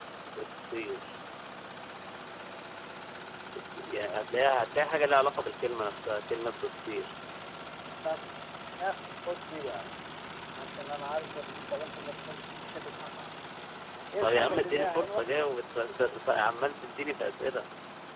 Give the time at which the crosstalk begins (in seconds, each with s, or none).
14.2 s